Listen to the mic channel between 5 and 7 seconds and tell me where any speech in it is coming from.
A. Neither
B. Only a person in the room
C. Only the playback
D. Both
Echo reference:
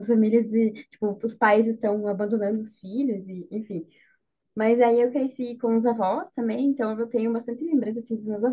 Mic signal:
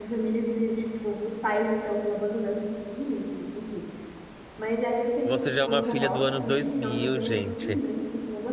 D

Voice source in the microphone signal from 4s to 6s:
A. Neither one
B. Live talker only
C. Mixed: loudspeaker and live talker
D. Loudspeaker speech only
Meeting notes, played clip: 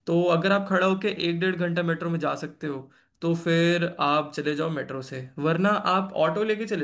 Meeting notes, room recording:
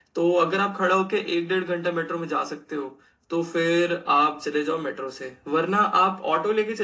D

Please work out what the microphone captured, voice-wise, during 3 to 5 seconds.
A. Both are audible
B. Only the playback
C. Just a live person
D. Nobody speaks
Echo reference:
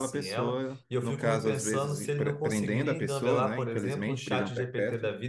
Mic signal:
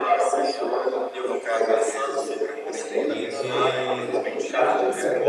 A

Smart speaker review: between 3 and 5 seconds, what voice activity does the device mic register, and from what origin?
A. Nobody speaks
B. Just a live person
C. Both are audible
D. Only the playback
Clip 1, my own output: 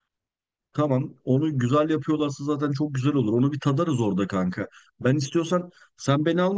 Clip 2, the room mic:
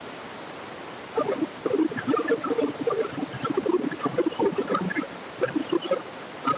D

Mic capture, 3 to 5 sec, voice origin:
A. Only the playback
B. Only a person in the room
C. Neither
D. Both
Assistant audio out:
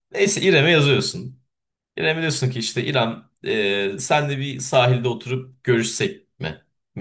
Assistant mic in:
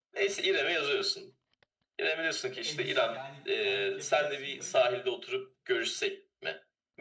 D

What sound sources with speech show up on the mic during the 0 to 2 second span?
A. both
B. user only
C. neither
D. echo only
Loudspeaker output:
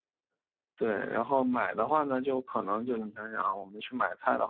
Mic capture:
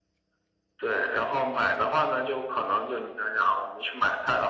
D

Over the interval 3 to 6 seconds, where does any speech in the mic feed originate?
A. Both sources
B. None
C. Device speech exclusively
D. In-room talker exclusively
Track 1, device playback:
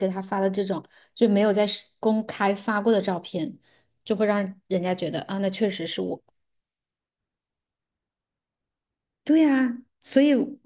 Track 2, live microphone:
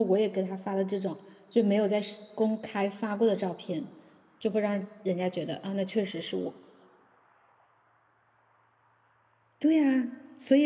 C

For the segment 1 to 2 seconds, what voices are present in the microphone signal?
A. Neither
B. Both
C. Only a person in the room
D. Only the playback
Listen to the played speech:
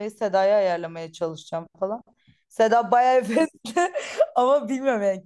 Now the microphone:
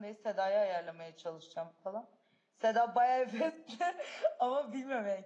D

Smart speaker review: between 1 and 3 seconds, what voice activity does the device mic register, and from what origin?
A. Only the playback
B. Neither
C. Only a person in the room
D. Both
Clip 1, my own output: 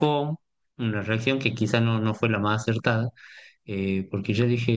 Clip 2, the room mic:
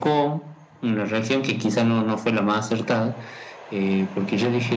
A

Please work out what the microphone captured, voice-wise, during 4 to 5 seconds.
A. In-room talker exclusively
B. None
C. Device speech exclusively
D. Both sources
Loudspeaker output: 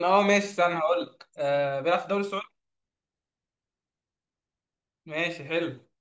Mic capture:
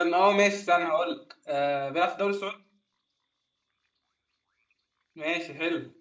B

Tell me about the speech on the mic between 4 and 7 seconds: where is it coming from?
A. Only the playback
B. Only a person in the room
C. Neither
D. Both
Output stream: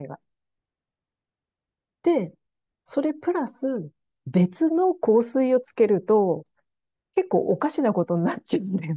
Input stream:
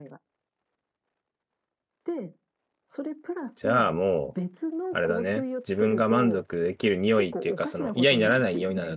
D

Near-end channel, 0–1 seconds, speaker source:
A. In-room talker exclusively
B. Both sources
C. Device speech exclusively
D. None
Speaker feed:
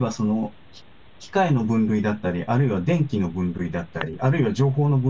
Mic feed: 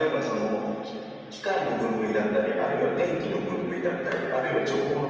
C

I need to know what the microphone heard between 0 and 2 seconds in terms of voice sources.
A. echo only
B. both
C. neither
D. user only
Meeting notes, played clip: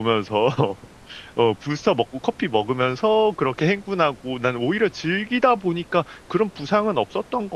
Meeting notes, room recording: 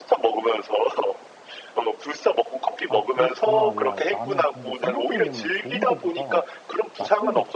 A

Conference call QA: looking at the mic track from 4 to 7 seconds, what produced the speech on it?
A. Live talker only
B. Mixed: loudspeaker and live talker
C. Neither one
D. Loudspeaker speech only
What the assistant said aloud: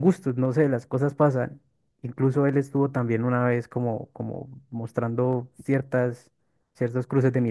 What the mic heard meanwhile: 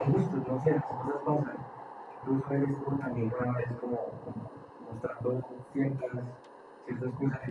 D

